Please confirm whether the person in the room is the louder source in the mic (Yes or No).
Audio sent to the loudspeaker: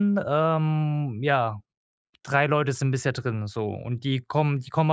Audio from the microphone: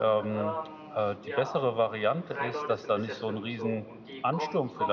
Yes